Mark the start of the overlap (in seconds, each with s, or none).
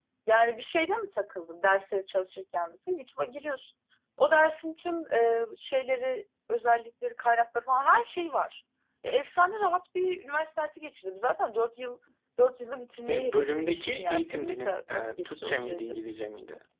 13.1 s